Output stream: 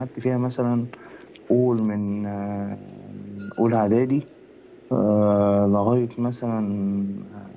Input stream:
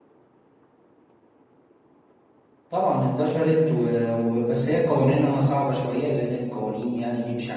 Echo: none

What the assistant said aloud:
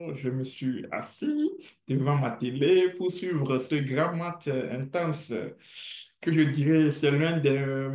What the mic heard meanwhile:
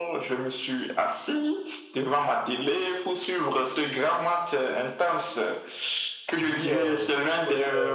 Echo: present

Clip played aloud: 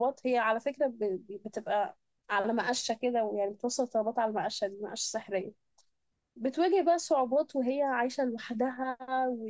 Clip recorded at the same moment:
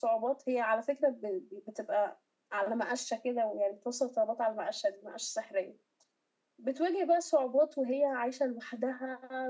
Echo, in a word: present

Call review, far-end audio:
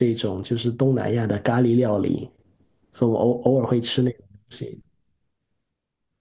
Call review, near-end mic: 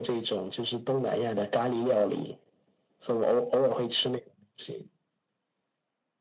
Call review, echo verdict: present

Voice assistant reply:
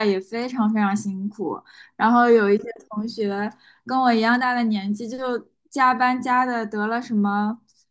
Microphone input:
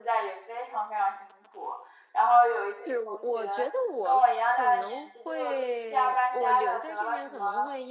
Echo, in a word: present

